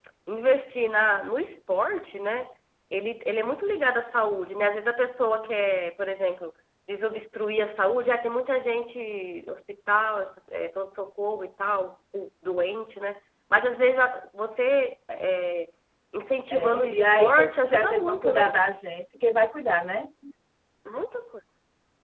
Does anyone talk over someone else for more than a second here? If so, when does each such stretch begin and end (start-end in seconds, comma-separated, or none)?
16.5-18.5